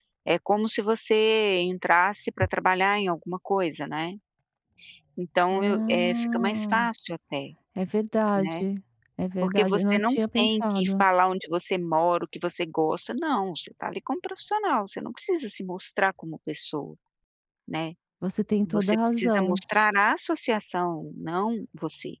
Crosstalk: present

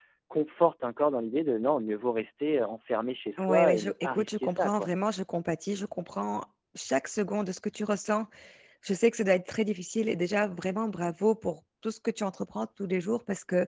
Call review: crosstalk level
present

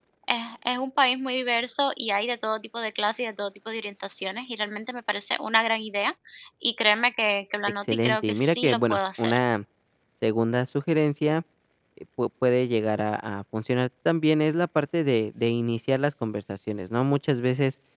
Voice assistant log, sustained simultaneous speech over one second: present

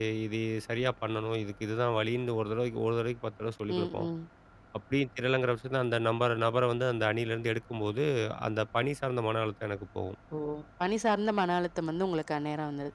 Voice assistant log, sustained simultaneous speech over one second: none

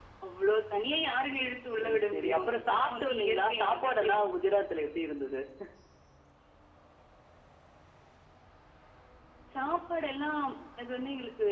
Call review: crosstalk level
present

